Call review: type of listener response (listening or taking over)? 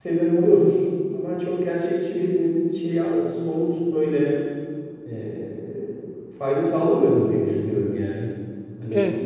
taking over